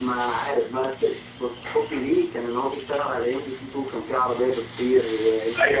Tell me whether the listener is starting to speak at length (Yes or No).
Yes